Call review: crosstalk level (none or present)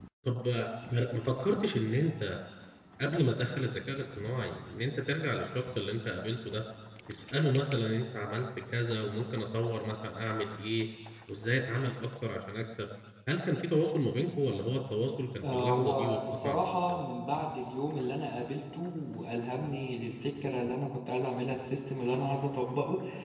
present